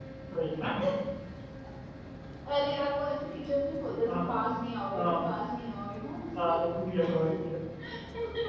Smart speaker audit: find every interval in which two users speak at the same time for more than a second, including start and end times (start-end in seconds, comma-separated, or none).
none